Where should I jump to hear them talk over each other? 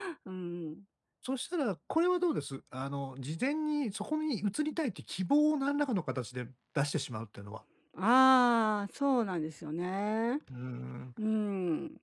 none

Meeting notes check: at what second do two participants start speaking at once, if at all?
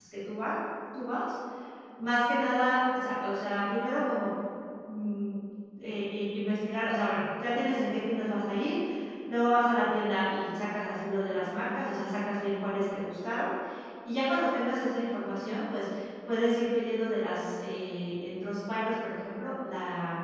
none

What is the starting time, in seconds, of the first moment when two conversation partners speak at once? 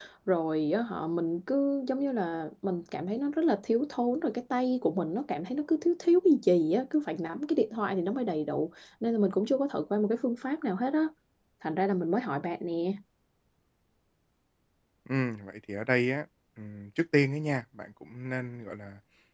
none

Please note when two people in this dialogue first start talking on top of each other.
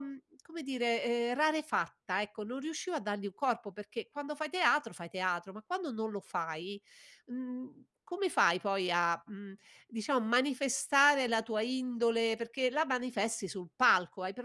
none

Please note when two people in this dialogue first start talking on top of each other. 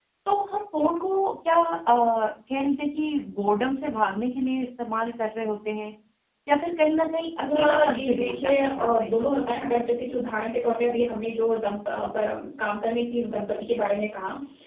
7 s

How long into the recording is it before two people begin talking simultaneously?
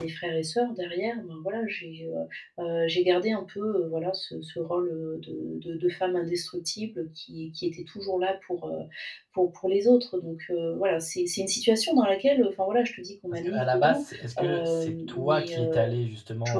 13 s

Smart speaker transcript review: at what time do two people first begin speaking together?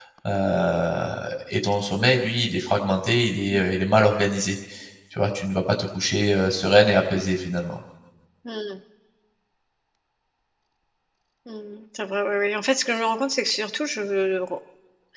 none

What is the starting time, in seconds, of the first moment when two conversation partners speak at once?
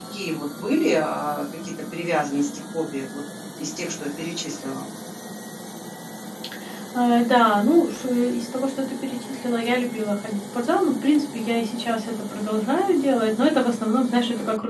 none

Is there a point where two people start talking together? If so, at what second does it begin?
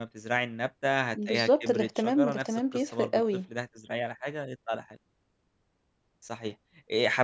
1 s

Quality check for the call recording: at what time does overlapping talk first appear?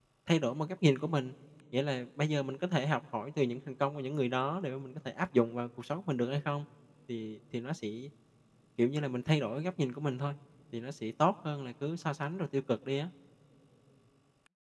none

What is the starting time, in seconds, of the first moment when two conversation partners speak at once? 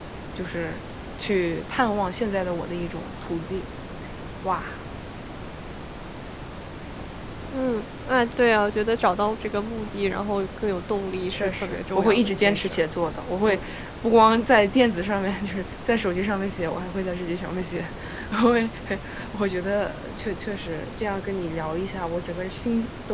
11 s

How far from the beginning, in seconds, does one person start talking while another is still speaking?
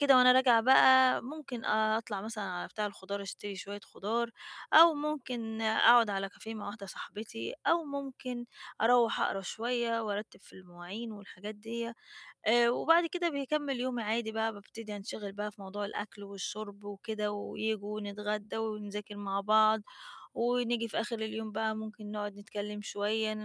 none

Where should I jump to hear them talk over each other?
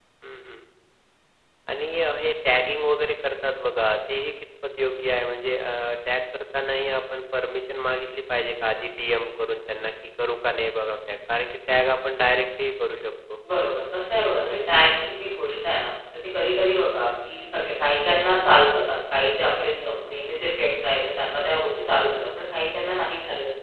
none

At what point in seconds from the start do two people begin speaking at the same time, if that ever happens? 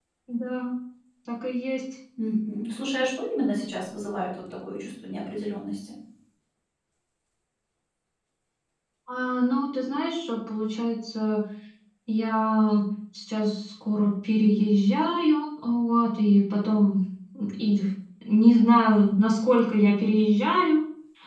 none

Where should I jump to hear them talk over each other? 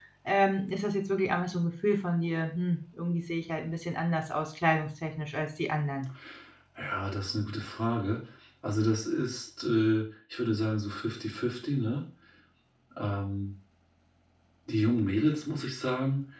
none

